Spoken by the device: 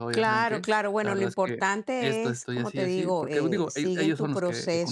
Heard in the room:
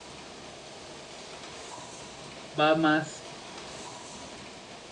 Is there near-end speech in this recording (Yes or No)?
Yes